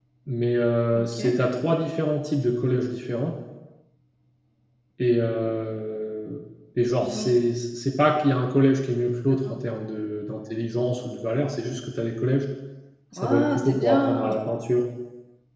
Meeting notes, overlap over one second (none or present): present